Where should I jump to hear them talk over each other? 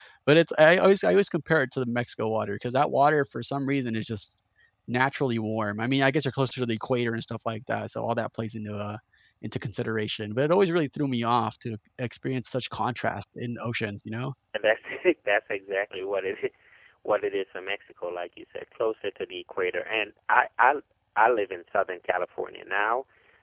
none

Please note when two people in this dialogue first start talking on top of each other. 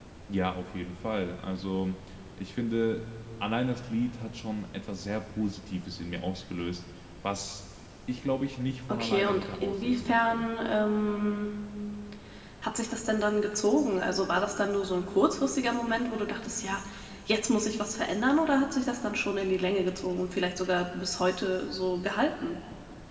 8.9 s

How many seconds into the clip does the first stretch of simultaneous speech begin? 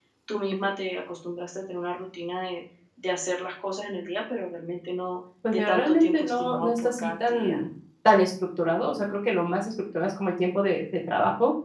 5.4 s

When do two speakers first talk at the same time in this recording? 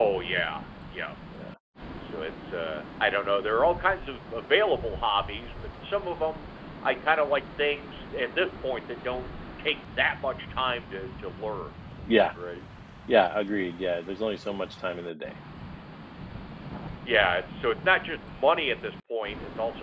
none

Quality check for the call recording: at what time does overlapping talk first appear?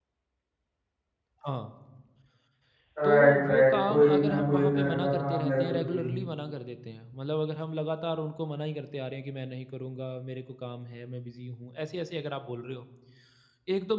3.0 s

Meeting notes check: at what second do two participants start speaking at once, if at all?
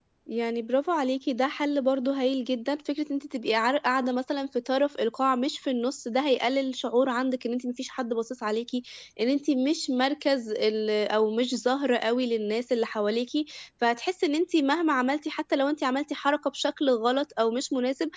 none

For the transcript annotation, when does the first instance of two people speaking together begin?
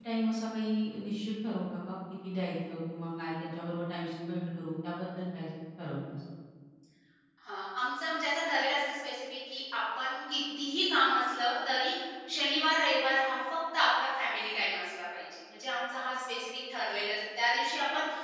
none

